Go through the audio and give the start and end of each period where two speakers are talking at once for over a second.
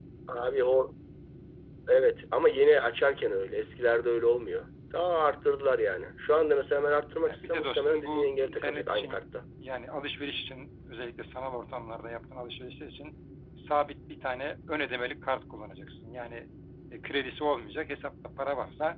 7.2-9.2

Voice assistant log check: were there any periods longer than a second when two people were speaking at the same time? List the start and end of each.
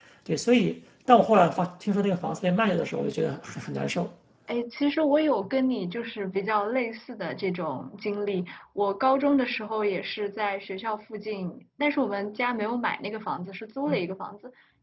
none

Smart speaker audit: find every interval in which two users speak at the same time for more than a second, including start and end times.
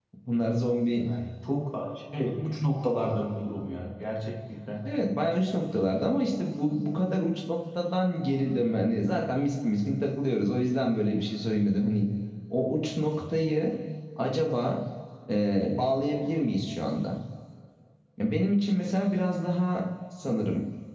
none

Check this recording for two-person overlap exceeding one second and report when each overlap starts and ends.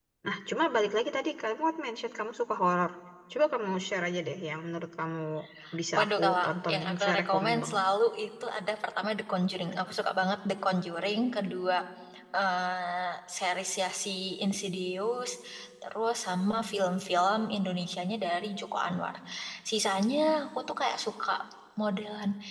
6.0-7.8

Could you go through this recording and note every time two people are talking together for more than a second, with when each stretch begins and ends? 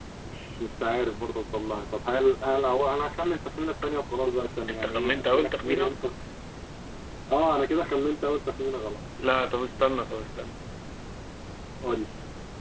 4.7-5.9

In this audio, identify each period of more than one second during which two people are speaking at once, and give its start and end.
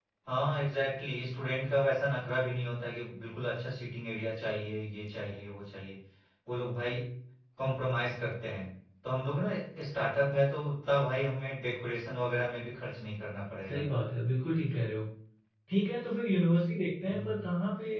none

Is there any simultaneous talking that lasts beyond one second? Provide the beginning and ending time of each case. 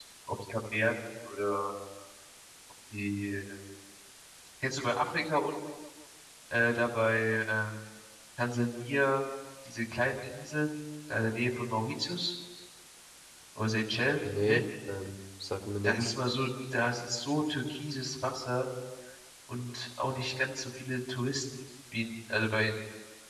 none

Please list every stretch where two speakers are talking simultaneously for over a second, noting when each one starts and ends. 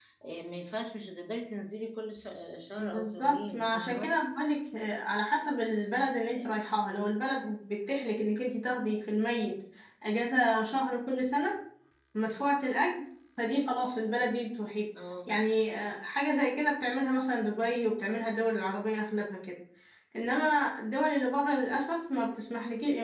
2.8-4.1

